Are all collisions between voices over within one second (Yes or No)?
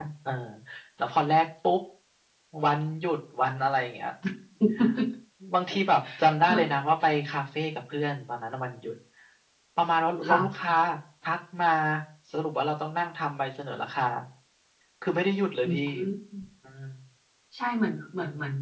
Yes